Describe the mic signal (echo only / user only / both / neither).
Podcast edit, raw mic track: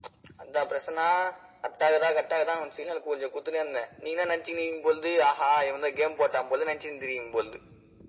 echo only